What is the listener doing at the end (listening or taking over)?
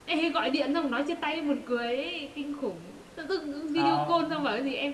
listening